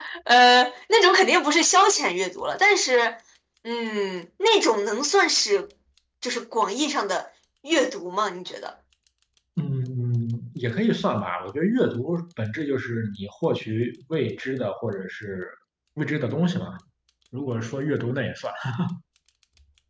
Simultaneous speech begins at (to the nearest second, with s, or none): none